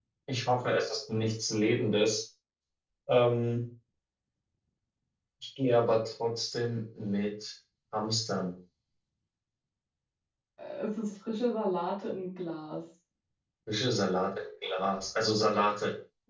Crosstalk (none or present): none